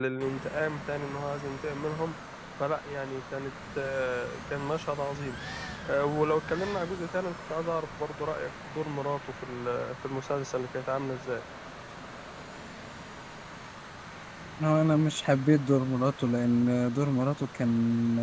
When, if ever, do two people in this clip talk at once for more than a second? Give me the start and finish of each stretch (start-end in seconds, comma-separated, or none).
none